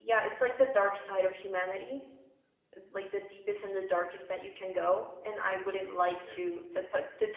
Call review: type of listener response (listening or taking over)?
listening